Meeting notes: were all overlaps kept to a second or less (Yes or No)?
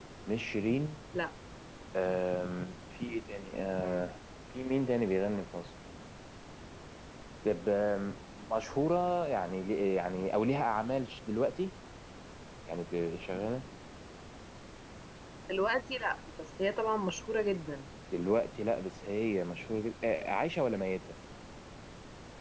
Yes